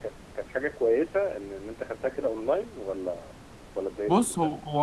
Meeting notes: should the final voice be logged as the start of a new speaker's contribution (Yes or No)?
Yes